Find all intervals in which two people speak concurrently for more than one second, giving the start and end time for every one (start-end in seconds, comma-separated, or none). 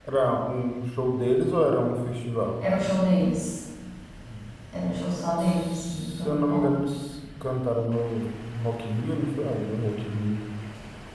5.4-6.7